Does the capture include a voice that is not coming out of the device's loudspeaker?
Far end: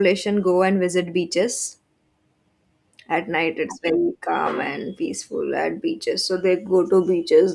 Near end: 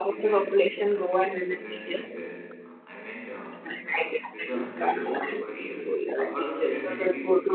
Yes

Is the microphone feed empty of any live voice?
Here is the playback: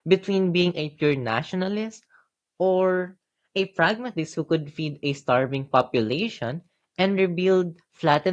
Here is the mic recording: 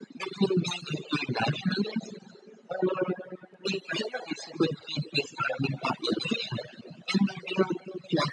Yes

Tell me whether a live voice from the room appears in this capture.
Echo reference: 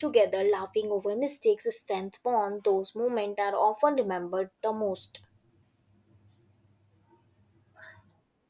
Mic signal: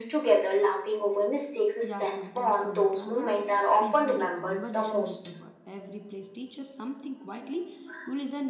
Yes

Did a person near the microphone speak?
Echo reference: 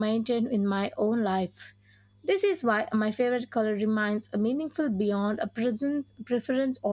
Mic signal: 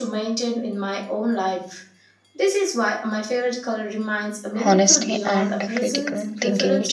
Yes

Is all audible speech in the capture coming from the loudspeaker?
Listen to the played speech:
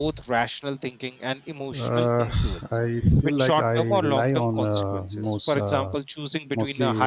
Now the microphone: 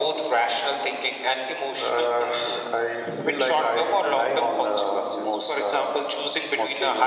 Yes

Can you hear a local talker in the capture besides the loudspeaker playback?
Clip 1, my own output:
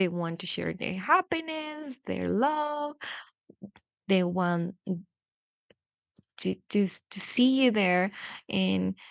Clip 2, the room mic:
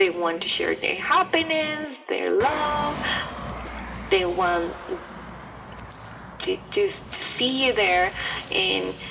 No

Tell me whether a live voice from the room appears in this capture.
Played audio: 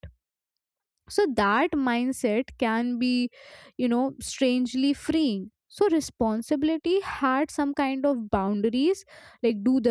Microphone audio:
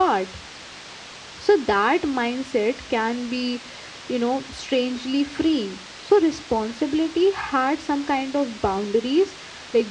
No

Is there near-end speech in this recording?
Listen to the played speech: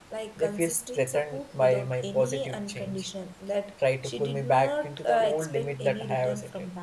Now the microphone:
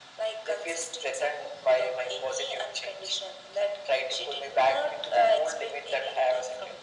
No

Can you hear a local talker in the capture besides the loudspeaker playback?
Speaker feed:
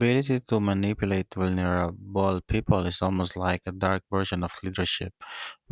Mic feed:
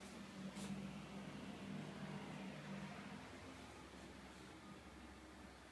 No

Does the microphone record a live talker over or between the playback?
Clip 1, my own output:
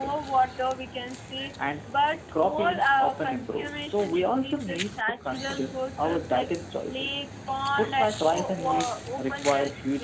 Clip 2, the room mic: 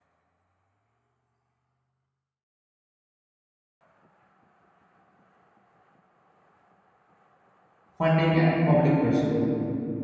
Yes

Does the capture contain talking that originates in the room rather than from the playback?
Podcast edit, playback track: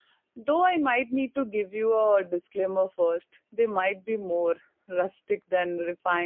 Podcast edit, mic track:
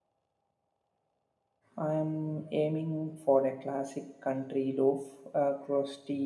Yes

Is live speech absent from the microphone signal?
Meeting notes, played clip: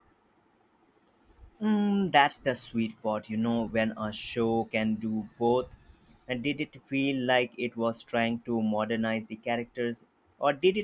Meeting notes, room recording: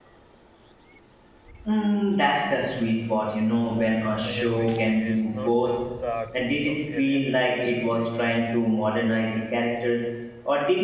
No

